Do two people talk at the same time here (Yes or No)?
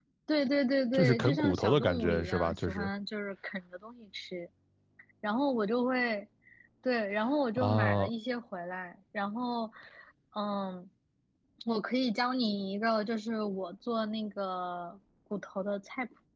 Yes